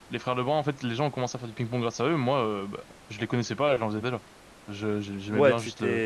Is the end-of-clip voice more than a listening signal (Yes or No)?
Yes